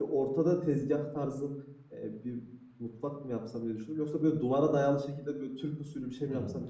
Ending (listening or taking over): taking over